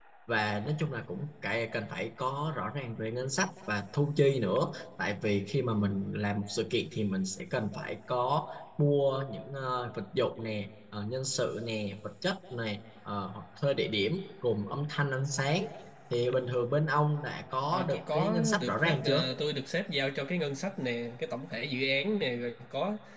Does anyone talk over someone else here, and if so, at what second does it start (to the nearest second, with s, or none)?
18 s